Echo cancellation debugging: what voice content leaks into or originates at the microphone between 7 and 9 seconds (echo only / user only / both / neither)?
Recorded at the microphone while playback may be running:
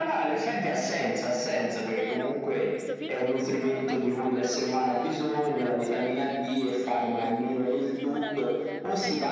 both